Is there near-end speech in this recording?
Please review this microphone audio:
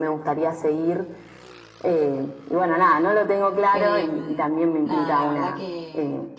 Yes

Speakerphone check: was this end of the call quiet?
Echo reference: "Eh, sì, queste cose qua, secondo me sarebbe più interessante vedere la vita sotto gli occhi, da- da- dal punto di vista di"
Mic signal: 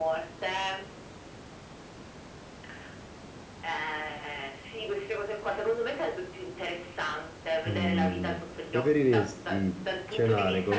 No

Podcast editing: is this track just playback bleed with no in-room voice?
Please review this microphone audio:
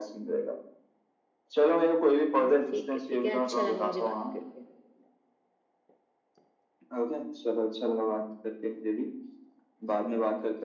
No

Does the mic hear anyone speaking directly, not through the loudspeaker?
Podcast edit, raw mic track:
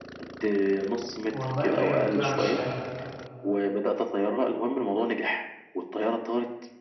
Yes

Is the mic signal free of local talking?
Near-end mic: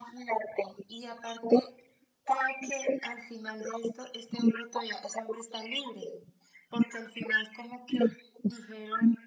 Yes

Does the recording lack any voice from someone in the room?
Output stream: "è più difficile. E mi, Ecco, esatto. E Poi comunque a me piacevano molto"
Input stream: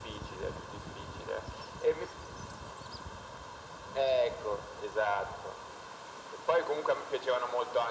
Yes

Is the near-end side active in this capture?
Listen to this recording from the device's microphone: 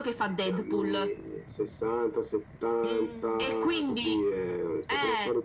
Yes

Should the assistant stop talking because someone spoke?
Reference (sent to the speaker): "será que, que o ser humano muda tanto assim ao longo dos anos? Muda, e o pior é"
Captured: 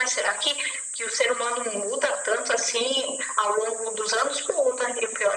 No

